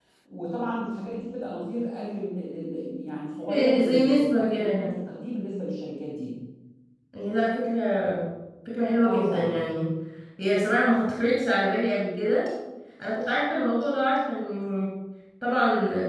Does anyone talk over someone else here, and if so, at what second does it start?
3.5 s

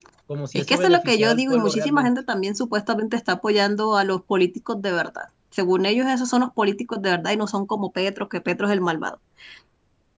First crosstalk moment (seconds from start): 0.5 s

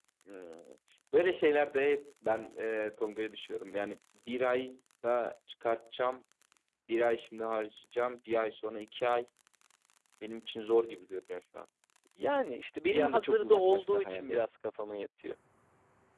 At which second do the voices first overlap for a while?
12.9 s

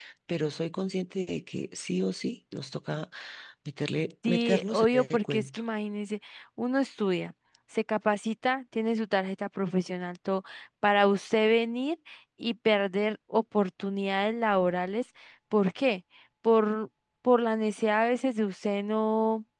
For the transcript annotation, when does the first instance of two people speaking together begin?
4.3 s

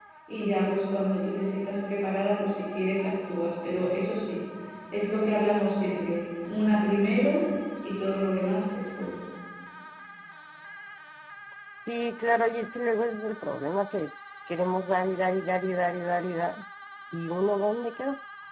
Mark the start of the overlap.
none

